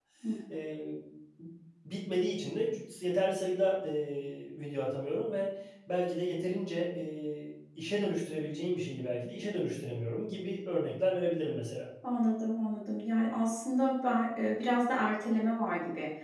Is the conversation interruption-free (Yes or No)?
Yes